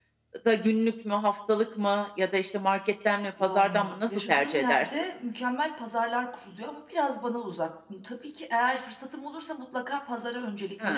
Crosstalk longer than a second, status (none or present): present